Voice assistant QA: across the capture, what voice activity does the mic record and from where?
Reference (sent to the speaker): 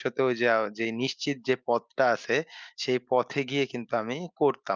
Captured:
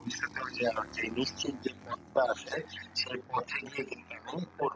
echo only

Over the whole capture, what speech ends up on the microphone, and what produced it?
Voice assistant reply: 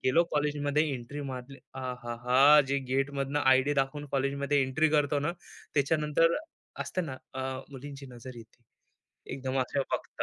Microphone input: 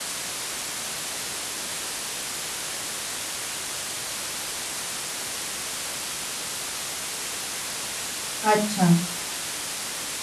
user only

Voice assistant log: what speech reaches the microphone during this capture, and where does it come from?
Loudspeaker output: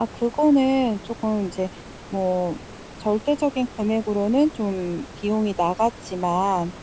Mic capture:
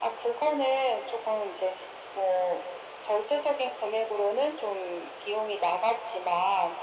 echo only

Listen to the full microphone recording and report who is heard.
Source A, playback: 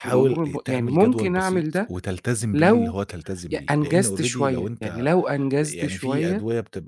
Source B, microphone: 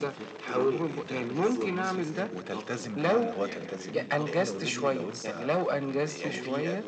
both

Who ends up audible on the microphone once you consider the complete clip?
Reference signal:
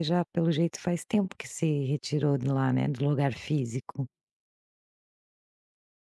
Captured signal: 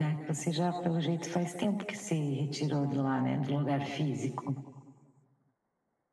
echo only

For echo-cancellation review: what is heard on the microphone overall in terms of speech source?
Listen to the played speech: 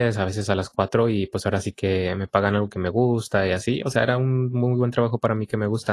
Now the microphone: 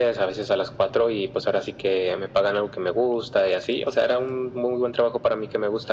echo only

